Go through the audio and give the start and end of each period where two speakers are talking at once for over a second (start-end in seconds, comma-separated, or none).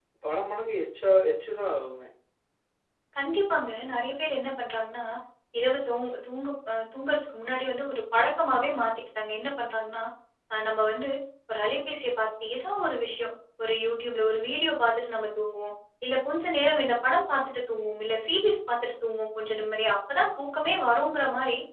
none